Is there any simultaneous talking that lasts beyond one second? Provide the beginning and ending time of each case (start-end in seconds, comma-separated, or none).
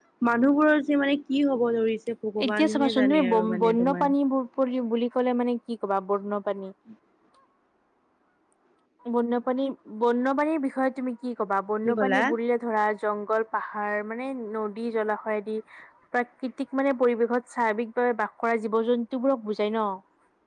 2.4-4.1